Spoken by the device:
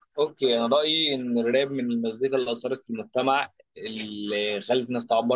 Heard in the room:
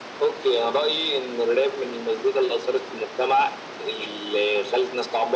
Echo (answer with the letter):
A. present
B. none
A